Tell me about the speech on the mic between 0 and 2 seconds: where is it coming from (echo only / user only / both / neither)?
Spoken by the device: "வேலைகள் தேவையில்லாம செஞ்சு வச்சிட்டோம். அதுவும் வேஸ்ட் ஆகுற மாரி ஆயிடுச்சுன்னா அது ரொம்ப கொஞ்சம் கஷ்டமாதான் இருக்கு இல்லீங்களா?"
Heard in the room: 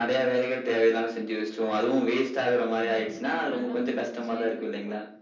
echo only